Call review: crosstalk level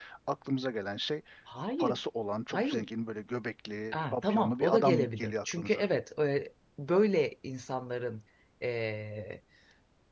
present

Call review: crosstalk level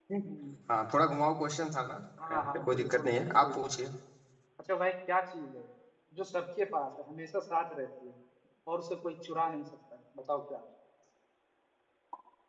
present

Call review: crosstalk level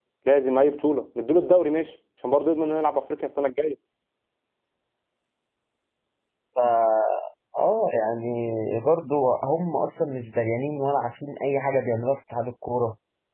none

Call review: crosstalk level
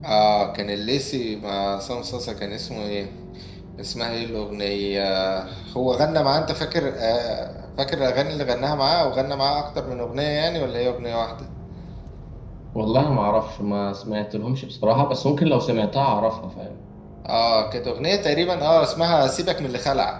none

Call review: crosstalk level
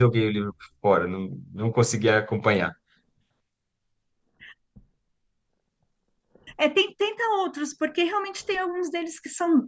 none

